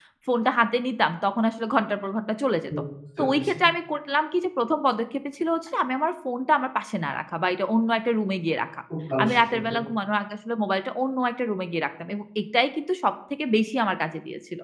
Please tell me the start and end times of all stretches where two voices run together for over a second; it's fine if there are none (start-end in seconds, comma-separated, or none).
none